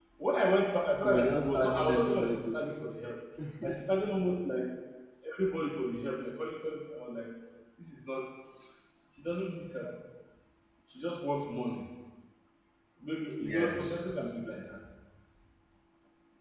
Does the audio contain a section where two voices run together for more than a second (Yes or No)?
Yes